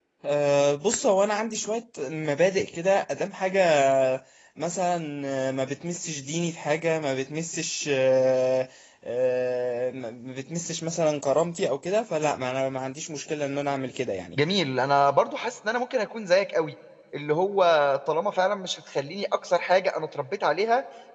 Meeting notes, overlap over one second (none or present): none